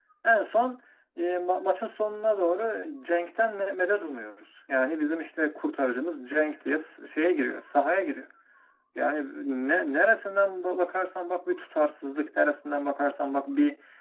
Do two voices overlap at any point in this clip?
No

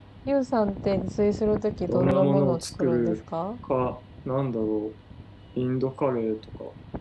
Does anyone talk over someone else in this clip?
Yes, from 1.9 s

